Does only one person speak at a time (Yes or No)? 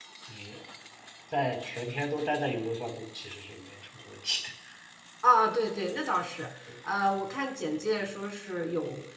Yes